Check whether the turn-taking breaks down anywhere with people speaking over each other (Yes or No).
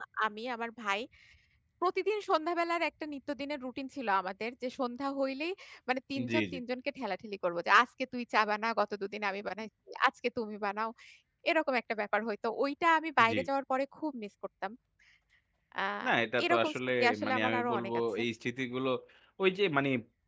Yes